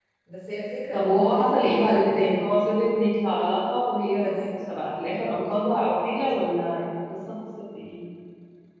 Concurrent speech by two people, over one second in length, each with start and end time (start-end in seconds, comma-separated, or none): 0.9-2.4